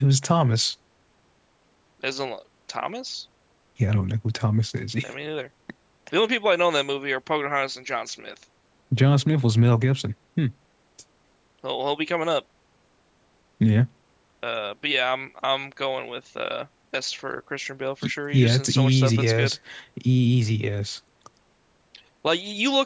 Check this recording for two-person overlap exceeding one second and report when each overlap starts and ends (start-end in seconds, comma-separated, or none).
18.0-19.6